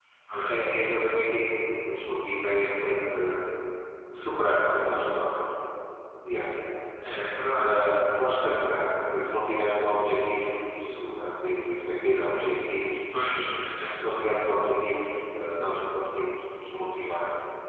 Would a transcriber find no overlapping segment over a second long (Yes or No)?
Yes